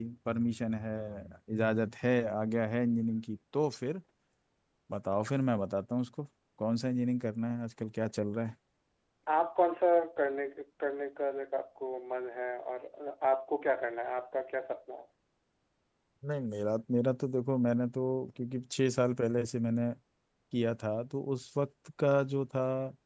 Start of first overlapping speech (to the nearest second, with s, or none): none